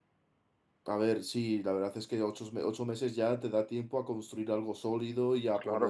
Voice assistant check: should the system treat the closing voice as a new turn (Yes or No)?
No